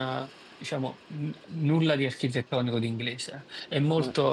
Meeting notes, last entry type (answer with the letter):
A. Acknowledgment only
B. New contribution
A